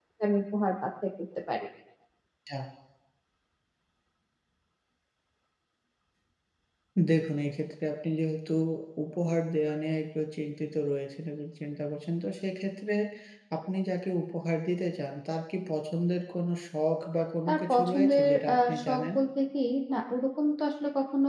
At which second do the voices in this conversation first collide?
17 s

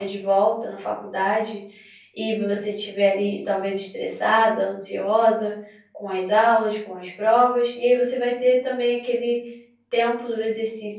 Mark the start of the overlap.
none

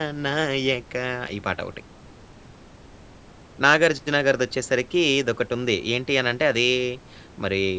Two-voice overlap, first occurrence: none

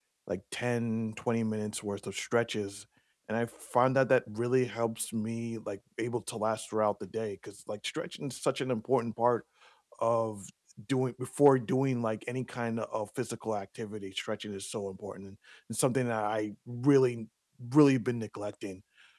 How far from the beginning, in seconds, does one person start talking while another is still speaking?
none

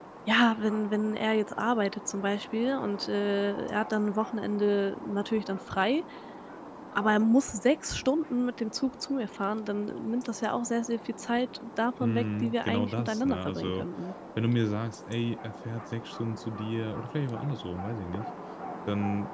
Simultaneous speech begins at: 12 s

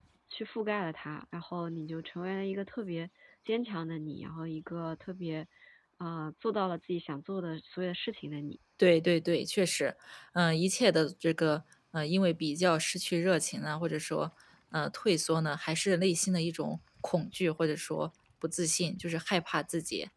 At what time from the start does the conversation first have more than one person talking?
none

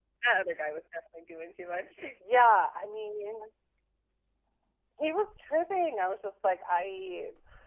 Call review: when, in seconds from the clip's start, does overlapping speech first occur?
none

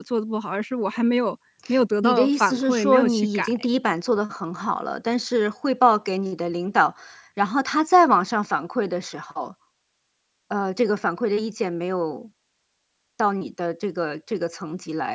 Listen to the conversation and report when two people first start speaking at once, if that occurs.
2 s

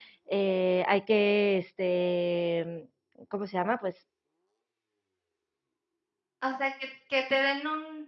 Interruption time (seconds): none

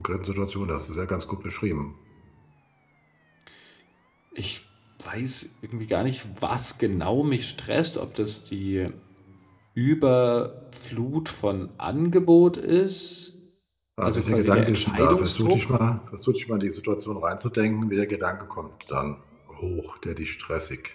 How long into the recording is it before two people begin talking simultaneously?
14 s

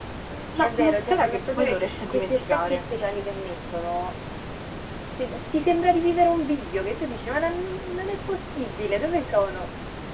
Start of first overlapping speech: 1 s

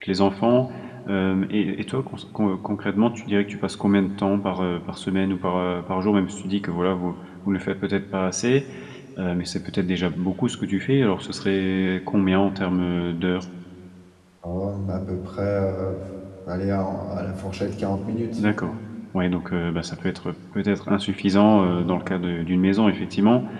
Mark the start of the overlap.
none

